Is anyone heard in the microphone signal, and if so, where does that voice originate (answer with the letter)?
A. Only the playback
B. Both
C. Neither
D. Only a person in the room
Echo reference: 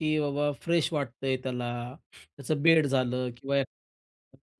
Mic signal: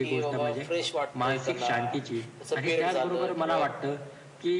B